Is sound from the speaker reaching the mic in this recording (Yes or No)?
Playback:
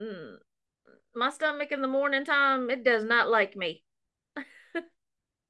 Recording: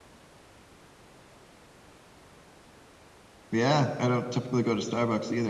No